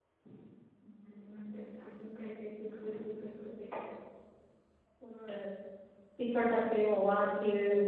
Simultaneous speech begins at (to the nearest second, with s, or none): none